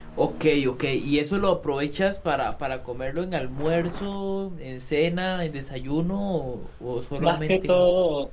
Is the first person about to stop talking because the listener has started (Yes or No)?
Yes